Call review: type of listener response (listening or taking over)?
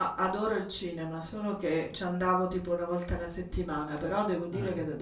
listening